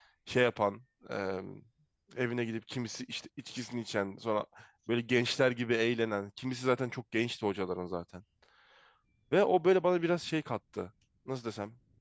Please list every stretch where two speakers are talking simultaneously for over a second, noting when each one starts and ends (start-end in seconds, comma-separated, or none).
none